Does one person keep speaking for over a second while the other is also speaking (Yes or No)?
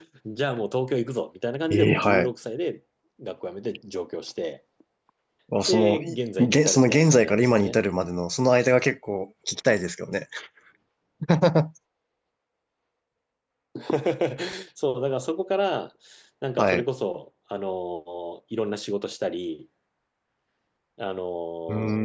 Yes